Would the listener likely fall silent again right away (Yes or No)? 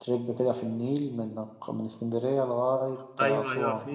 No